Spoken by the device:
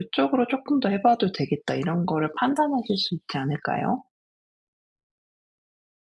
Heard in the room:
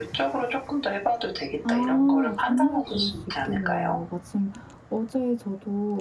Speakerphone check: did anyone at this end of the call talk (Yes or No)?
Yes